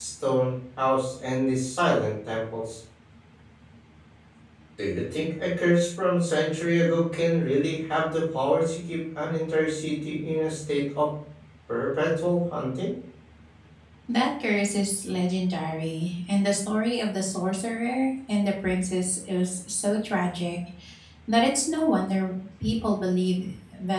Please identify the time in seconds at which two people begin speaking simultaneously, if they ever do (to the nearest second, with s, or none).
none